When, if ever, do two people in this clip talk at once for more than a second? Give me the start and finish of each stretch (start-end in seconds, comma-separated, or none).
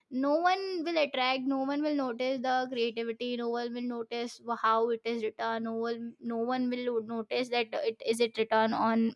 none